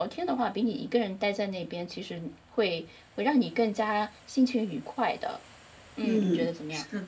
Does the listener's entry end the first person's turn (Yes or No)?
Yes